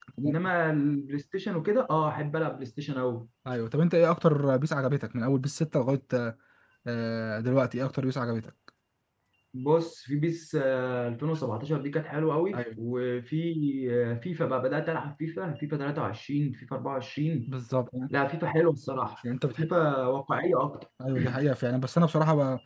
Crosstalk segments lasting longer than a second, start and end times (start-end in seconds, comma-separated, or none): none